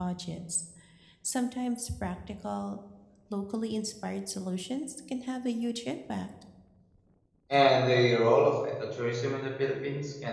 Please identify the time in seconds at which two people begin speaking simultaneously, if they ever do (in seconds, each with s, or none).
none